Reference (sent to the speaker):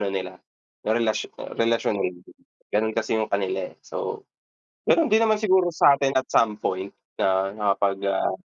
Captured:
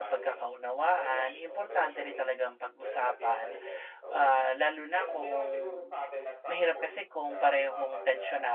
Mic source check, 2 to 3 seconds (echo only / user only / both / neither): both